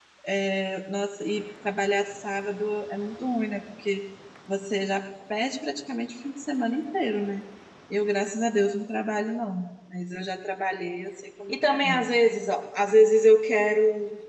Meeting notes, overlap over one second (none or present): none